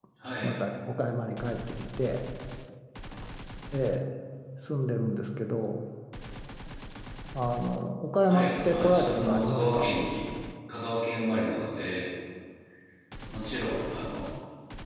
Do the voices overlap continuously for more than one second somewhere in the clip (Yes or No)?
Yes